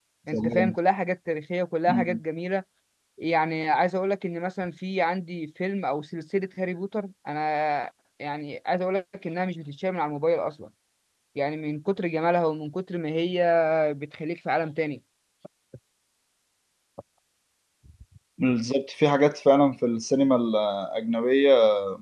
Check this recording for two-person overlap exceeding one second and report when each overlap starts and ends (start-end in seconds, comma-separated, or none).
none